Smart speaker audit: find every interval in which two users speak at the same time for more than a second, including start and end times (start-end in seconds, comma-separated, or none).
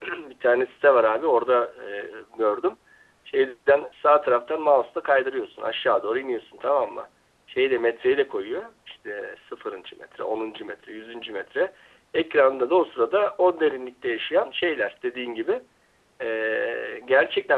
none